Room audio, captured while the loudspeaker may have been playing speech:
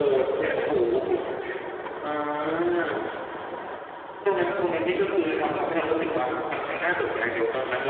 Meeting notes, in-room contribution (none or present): none